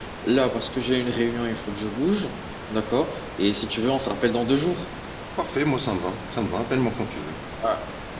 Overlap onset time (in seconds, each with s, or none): none